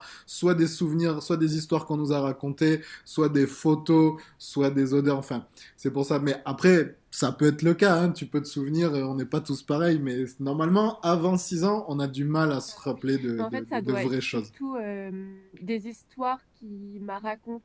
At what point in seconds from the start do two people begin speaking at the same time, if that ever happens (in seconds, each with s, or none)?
13.2 s